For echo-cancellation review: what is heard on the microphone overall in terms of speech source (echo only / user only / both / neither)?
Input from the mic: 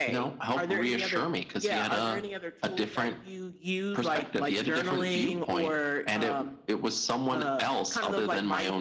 echo only